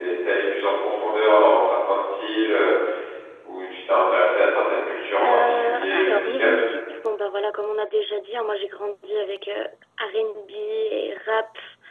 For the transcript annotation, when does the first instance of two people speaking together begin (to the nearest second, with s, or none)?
5 s